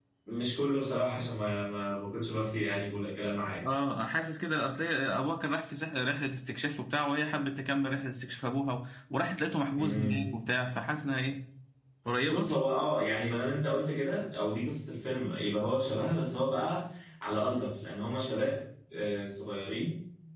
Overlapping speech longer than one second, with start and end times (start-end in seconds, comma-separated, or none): none